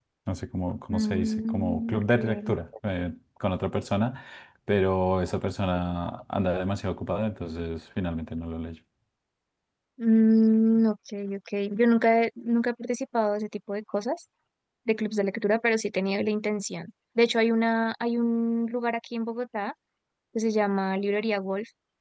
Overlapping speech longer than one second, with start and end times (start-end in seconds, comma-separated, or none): 0.9-2.6